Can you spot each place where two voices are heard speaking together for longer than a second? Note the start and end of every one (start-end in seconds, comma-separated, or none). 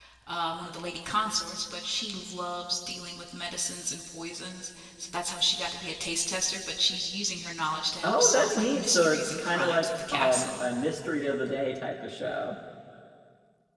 8.0-10.7